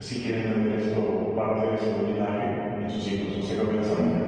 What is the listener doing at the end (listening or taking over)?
taking over